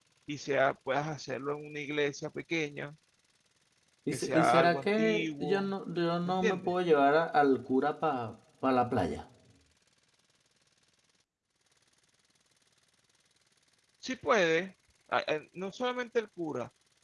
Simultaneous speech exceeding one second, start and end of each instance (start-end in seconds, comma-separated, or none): 4.1-5.7